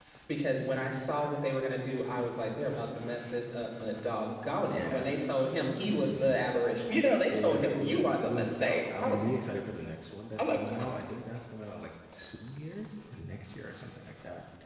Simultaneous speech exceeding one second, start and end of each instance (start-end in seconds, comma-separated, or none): 7.3-9.2